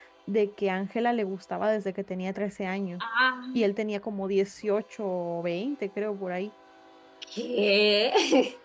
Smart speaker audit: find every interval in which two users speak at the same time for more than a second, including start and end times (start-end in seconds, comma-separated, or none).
none